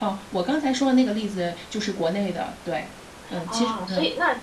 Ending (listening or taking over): taking over